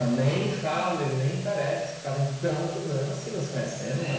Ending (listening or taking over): taking over